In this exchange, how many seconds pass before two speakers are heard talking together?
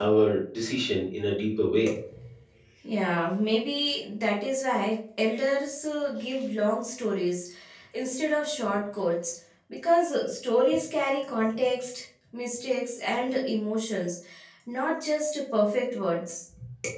none

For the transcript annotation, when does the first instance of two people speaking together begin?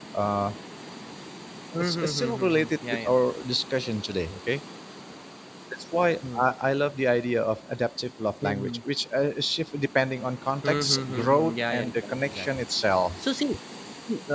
2 s

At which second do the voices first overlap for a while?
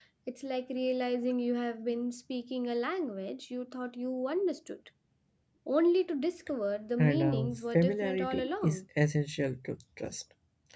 7 s

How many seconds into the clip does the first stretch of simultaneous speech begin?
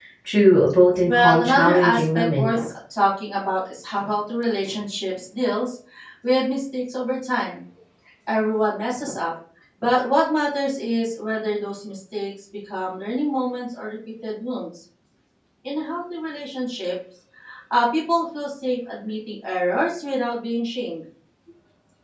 1 s

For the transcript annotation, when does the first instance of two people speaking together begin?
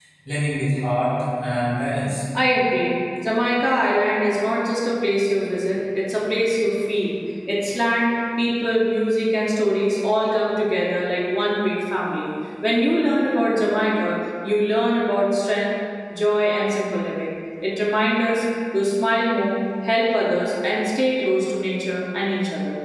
none

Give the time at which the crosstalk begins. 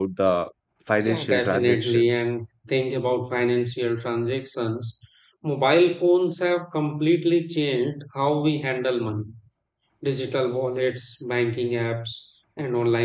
1 s

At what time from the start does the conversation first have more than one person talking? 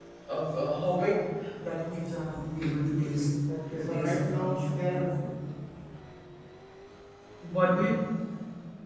4 s

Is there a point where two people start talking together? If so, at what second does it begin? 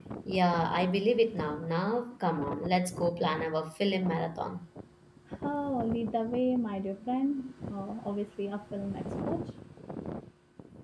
none

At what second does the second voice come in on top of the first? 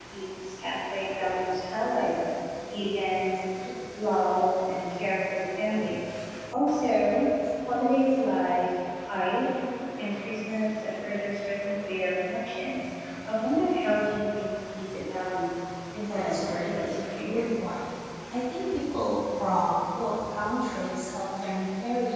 16 s

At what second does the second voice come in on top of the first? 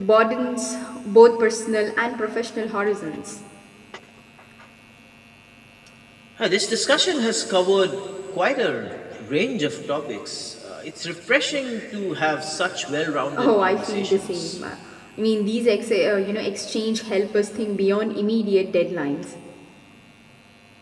13 s

